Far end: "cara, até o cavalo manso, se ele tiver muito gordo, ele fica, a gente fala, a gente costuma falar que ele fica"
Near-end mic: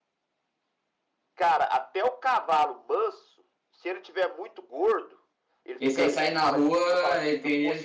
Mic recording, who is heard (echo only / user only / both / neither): both